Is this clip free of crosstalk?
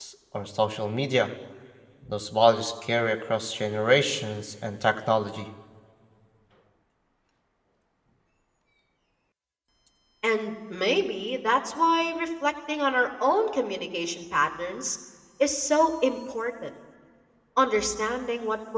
Yes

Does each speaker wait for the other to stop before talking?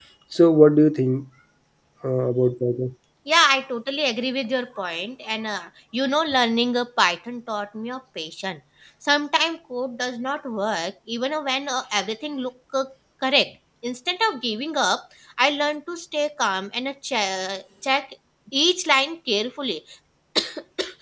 Yes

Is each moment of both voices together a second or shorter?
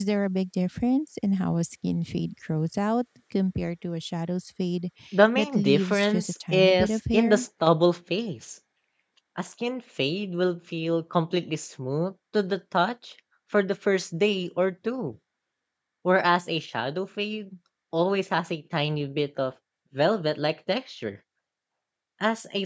No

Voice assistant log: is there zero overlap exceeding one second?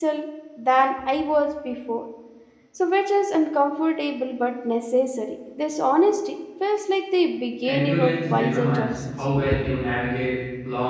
No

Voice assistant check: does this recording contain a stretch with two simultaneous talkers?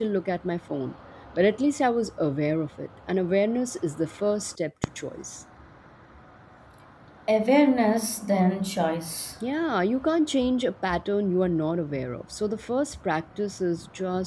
No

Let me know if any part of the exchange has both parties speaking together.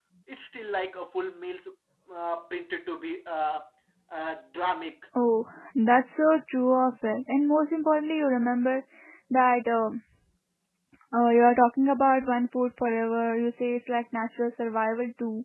No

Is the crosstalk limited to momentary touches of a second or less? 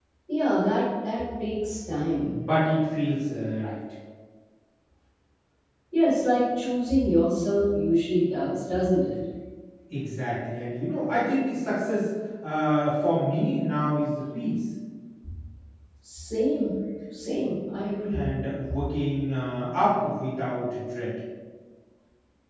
Yes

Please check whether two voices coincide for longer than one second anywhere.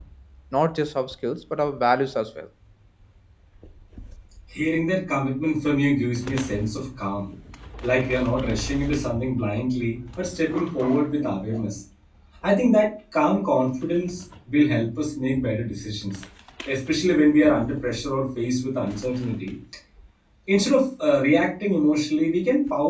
No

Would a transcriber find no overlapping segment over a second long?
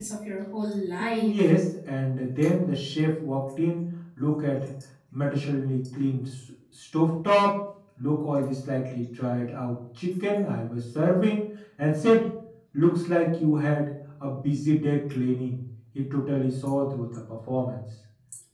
Yes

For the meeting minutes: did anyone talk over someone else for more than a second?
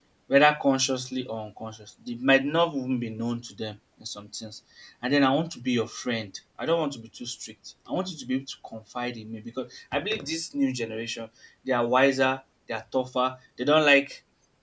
No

